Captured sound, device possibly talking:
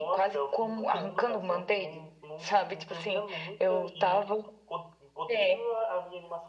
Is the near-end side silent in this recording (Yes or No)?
Yes